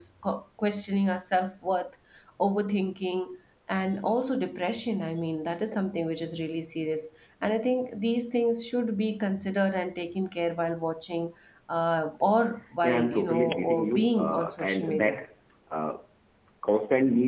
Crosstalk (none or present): present